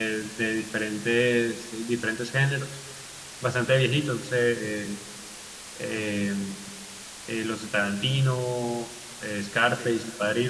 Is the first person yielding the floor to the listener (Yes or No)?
No